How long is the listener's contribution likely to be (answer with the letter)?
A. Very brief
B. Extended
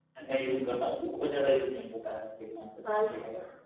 B